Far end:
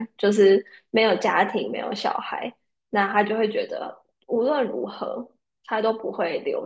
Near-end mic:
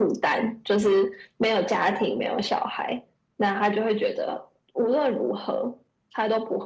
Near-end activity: none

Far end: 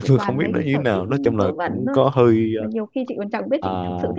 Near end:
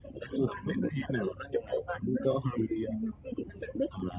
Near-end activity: none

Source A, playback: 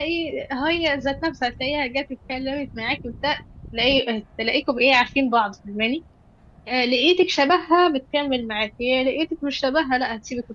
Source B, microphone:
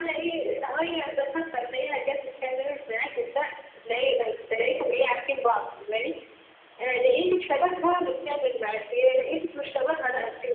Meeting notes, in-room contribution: none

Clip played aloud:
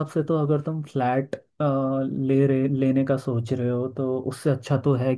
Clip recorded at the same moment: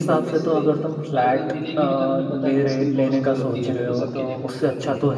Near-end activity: present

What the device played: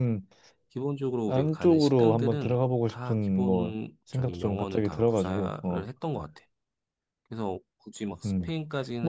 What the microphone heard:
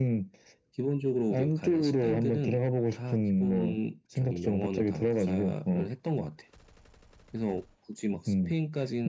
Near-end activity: none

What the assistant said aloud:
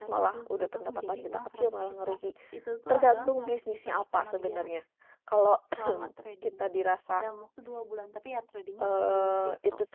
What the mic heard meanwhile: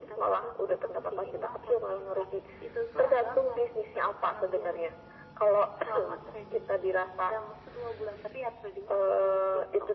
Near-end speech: none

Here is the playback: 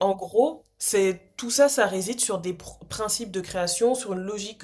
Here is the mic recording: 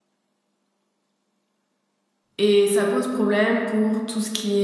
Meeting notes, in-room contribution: present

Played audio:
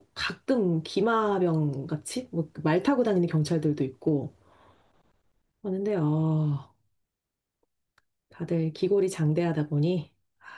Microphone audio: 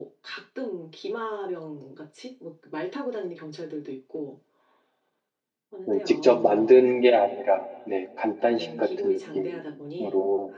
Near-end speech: present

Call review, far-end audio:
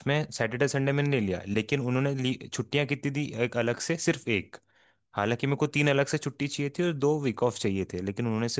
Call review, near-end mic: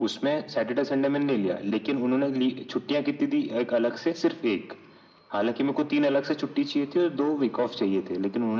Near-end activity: none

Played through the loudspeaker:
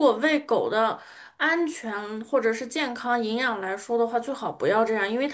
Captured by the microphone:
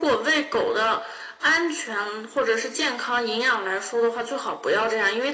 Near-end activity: none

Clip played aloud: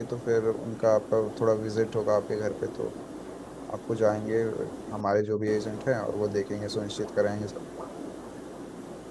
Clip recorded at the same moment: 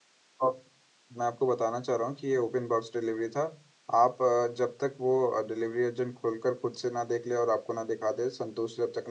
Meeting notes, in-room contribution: present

